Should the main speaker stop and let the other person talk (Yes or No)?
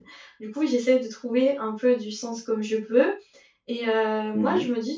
No